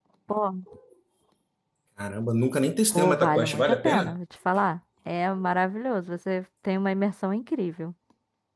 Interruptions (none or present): present